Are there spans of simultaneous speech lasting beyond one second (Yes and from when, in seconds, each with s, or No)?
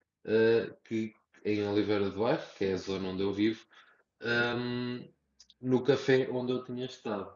No